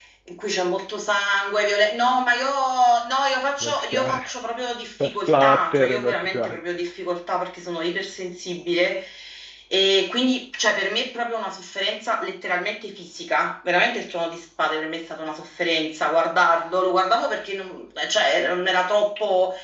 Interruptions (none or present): present